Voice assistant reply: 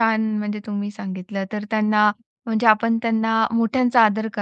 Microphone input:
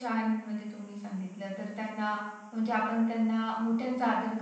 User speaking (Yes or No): No